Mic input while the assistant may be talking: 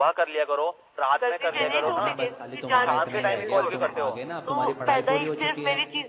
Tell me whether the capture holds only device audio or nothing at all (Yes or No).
No